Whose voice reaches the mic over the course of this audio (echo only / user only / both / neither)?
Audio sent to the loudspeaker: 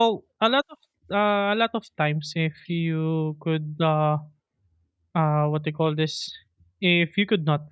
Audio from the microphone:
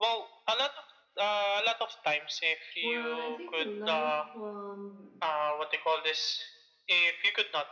both